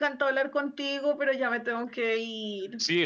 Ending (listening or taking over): taking over